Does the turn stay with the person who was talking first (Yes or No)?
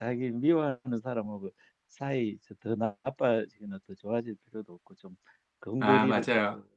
Yes